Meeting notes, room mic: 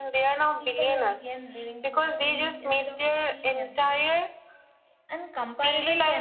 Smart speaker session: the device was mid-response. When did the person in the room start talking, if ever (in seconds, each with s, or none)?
0.6 s